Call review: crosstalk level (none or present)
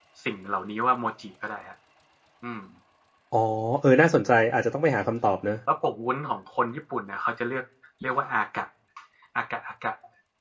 none